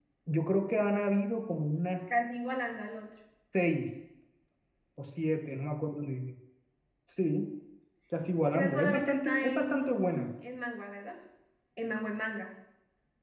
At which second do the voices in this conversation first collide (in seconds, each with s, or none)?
8.5 s